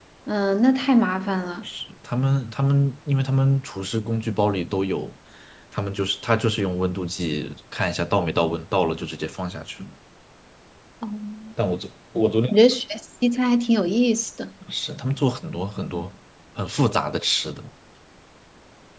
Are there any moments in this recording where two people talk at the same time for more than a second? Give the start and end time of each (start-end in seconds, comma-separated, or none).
none